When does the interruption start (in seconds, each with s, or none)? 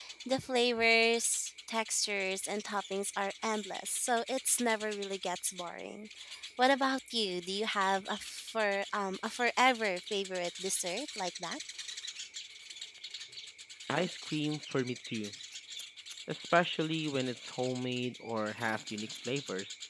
none